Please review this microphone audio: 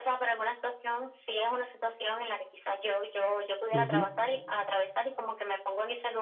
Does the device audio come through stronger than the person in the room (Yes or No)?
No